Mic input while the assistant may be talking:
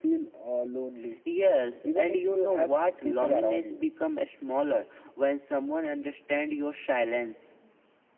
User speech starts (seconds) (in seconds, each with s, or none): none